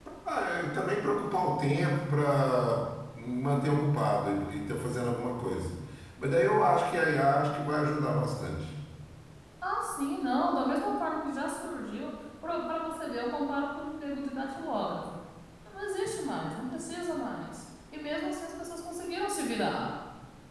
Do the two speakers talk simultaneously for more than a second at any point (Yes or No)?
No